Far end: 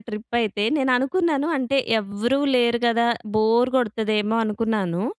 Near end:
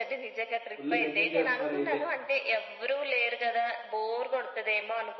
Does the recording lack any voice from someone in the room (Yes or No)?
No